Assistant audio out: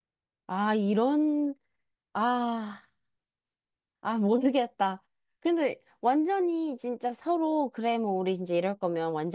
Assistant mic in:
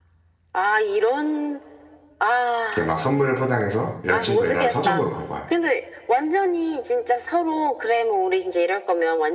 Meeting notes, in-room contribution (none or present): present